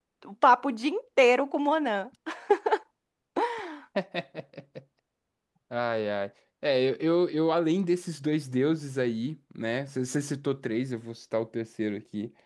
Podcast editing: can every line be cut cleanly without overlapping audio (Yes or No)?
Yes